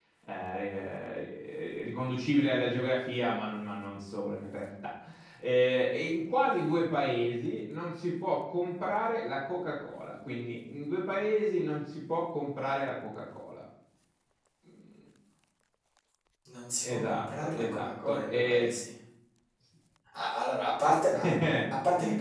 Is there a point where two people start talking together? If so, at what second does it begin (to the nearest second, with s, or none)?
17 s